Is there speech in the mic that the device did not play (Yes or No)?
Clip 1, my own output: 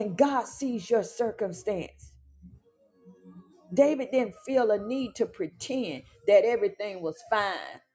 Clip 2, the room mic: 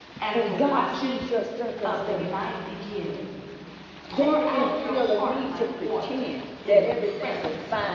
Yes